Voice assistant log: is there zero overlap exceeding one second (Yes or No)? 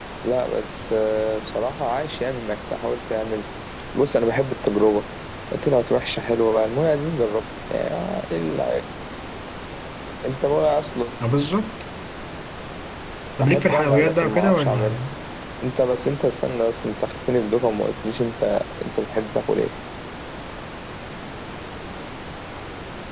No